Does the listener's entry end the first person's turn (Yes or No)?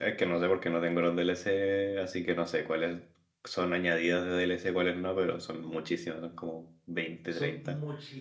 Yes